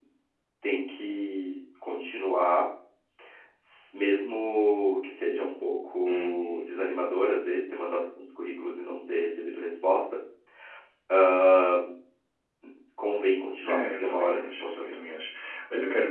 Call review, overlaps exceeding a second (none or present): present